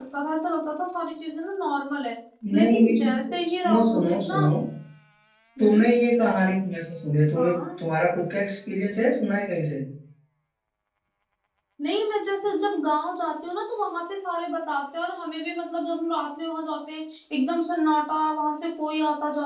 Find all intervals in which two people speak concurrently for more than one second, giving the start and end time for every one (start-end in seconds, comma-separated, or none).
2.5-4.4